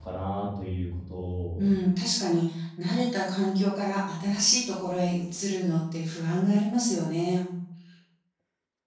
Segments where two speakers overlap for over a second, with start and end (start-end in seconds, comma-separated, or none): none